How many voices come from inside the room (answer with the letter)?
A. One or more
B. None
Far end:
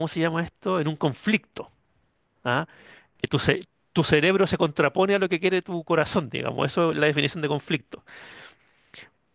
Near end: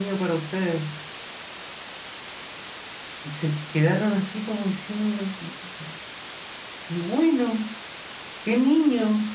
A